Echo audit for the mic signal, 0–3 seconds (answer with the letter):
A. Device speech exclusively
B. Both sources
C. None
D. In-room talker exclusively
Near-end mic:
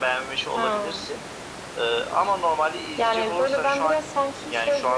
A